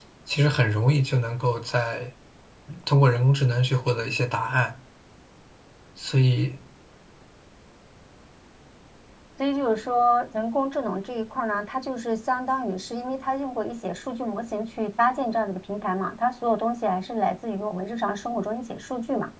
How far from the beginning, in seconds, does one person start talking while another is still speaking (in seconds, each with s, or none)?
none